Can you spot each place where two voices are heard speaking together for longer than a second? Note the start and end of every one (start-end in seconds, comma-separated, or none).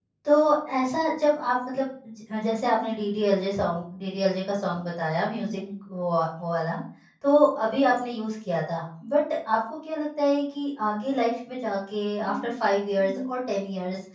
none